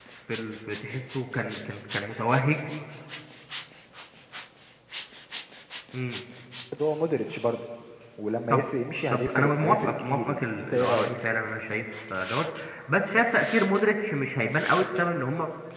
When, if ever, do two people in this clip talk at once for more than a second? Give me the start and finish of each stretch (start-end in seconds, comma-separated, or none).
9.1-11.1